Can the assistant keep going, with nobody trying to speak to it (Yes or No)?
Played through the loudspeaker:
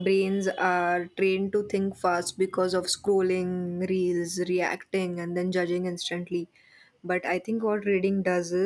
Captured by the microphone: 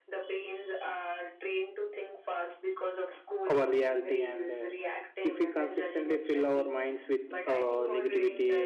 No